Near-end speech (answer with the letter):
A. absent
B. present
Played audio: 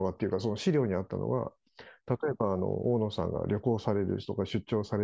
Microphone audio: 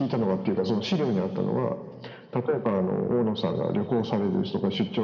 A